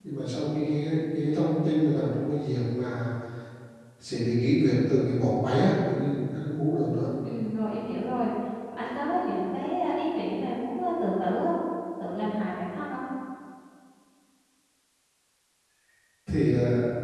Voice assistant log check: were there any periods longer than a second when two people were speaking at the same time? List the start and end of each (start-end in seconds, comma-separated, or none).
none